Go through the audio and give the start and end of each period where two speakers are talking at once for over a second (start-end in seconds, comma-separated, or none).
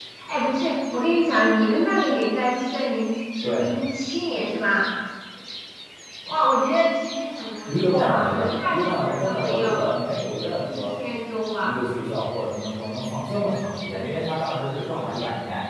7.7-9.8